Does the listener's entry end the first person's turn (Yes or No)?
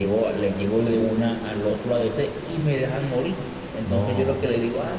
No